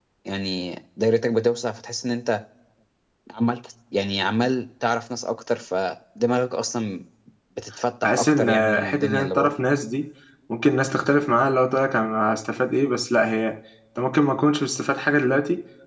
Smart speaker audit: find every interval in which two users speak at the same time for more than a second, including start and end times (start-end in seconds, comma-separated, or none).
8.0-9.5